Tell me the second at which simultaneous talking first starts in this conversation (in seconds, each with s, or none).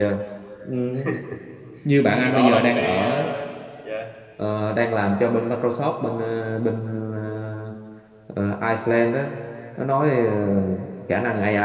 2.1 s